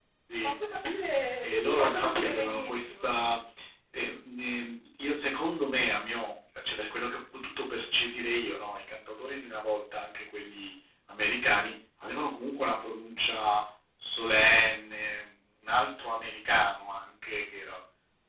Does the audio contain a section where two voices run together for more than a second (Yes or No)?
Yes